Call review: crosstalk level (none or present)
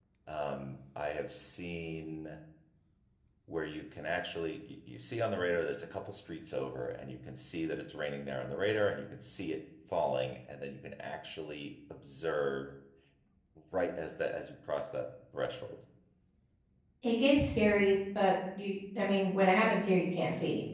none